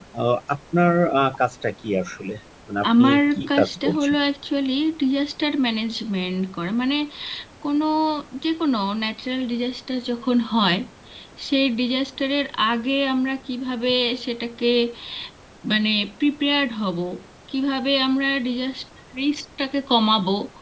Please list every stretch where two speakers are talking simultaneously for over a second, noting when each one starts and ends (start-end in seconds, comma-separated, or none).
3.0-4.2